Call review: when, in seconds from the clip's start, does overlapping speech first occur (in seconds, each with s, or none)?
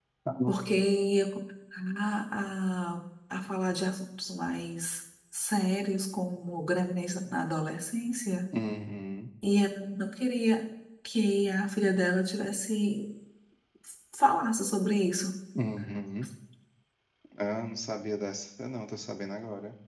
none